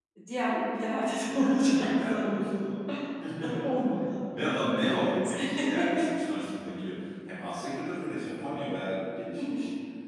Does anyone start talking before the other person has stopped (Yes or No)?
Yes